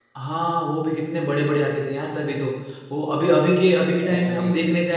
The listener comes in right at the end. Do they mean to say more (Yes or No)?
No